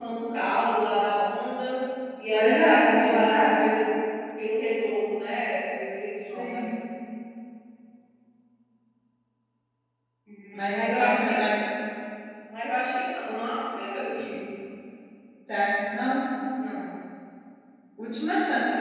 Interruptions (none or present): present